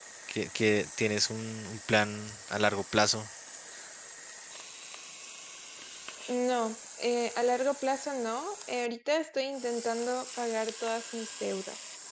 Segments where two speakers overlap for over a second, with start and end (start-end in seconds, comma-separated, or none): none